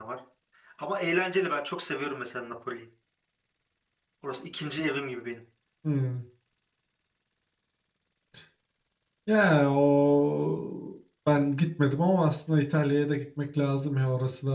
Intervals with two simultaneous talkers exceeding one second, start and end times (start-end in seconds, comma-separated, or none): none